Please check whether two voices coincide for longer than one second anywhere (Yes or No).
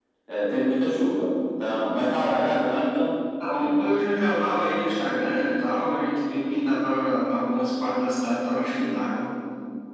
No